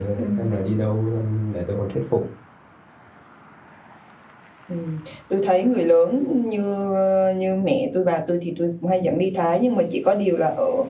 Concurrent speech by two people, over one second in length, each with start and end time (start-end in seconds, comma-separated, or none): none